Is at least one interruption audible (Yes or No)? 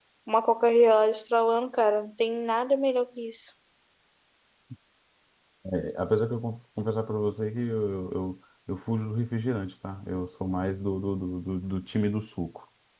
No